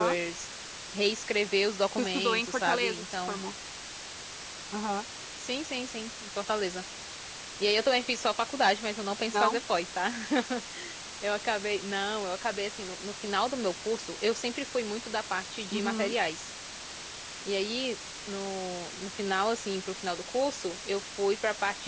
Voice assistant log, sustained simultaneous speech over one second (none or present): present